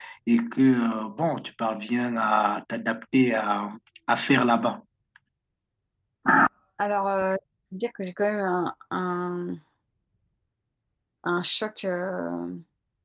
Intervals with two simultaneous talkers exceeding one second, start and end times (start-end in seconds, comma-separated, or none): none